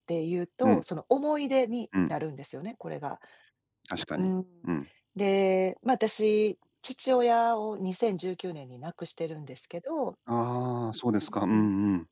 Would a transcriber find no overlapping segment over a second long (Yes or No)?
Yes